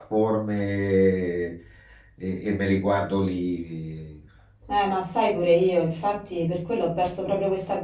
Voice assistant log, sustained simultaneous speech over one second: none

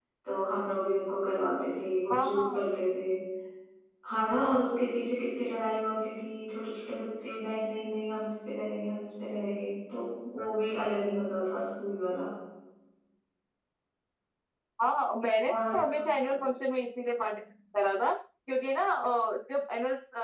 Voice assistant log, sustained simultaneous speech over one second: none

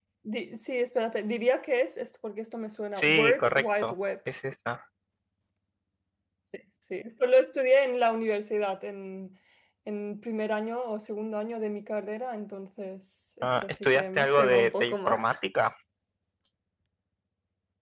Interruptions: present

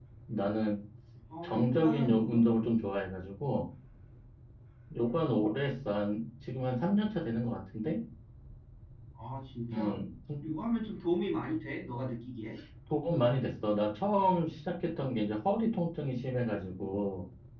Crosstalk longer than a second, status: present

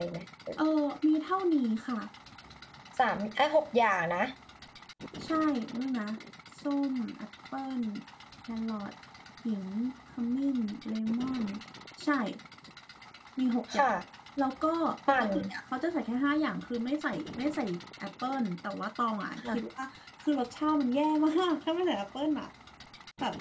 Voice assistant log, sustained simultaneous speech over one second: none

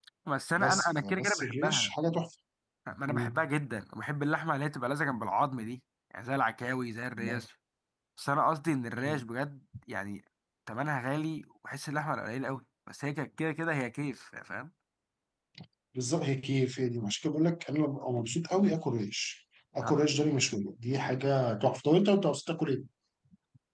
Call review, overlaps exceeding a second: present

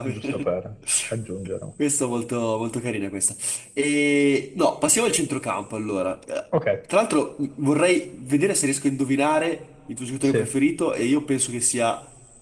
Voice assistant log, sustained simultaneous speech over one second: none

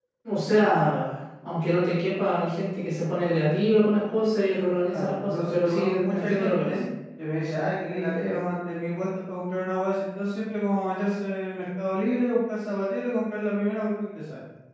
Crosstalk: present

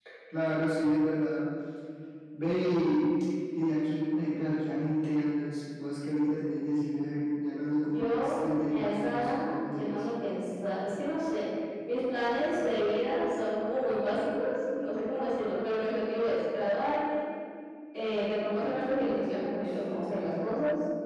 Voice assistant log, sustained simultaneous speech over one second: present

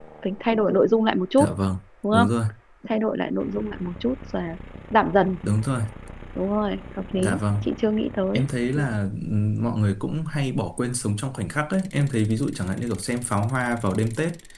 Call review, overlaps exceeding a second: none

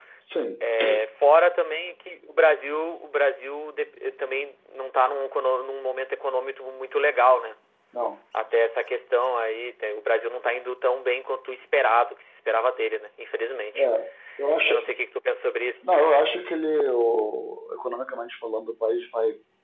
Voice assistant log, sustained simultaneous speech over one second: none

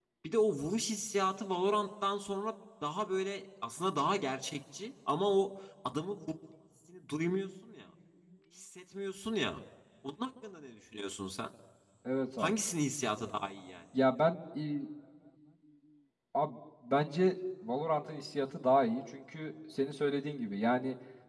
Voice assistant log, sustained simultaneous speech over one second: none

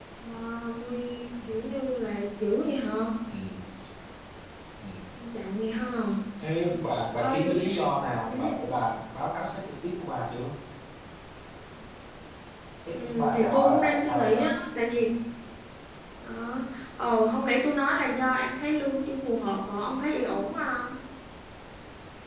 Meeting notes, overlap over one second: present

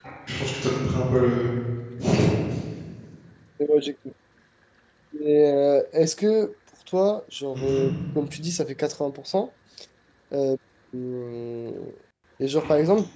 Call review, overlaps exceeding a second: none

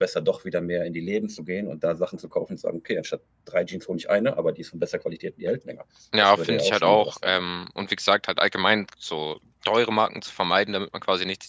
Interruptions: present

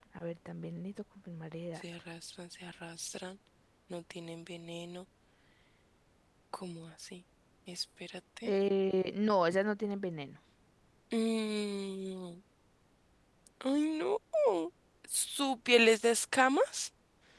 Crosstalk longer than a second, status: none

